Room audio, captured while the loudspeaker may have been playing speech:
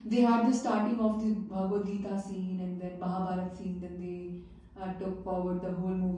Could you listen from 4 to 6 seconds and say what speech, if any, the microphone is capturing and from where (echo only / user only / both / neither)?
echo only